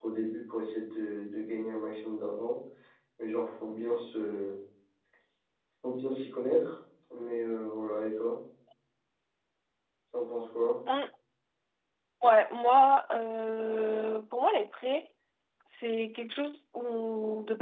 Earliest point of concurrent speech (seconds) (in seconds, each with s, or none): none